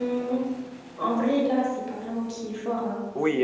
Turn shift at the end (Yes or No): Yes